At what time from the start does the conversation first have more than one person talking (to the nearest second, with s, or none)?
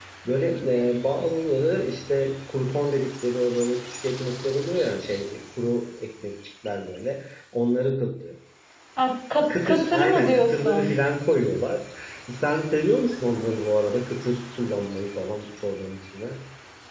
10 s